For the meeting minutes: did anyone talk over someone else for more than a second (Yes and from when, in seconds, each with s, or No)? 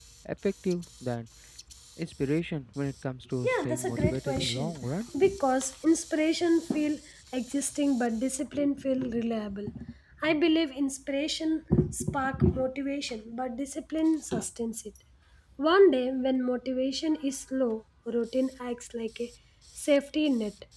Yes, from 3.4 s